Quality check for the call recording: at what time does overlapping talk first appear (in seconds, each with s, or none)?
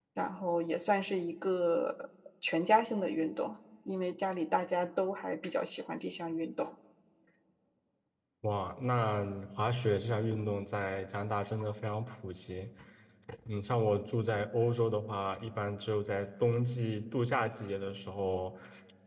none